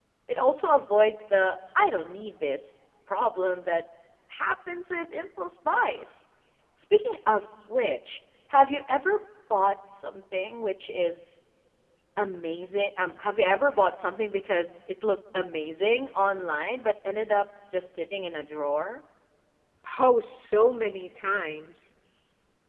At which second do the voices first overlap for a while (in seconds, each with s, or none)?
none